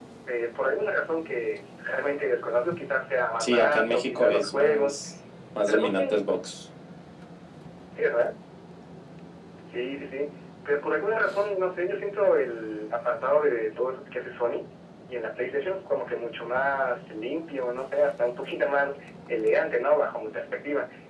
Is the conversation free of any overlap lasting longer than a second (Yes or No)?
No